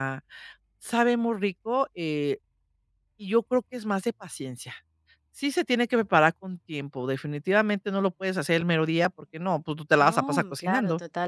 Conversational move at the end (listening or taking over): taking over